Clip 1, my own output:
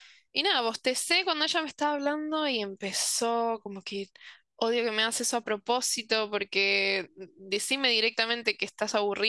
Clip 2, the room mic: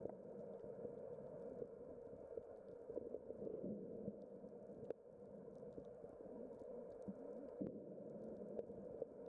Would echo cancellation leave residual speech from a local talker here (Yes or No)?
No